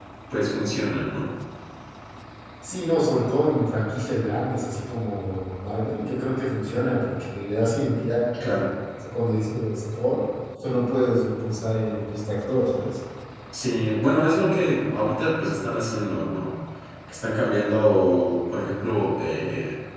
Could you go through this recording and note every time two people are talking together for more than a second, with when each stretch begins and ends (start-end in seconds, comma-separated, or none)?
none